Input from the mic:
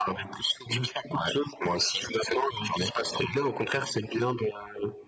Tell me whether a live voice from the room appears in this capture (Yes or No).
No